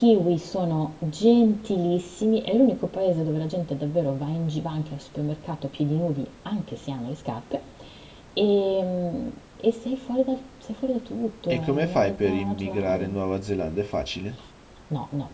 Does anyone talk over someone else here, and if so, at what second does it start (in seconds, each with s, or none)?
11.5 s